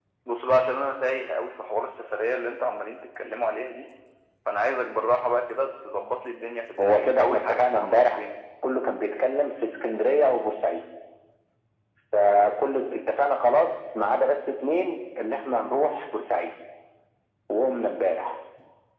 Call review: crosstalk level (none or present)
present